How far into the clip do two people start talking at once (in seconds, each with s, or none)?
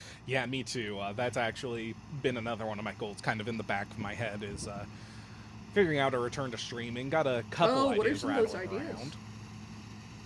7.6 s